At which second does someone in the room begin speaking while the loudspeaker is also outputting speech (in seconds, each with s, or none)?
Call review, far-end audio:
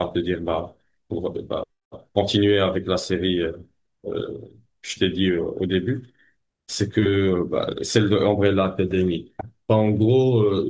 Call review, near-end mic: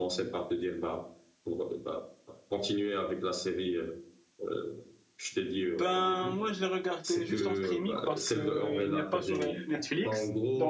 5.8 s